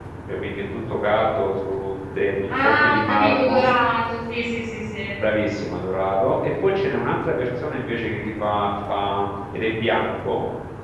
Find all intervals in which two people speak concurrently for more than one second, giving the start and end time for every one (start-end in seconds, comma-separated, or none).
2.5-3.7